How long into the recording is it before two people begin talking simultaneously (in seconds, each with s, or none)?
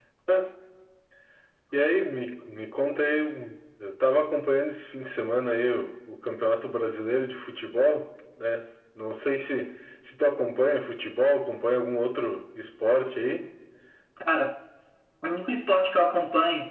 none